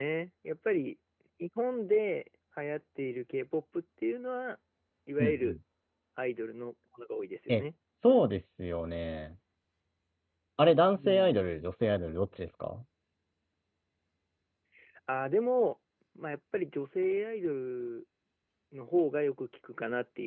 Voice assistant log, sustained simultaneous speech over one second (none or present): none